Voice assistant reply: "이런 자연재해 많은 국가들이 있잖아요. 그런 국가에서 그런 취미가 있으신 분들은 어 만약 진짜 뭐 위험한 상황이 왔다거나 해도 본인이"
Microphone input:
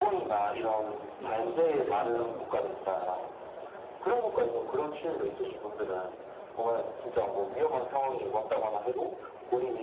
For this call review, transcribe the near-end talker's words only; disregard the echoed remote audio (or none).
뭐 담배를 피운다거나